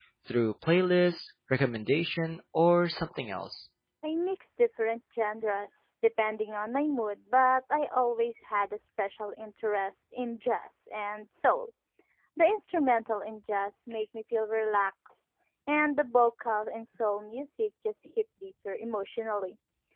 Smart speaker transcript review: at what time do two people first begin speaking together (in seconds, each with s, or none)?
none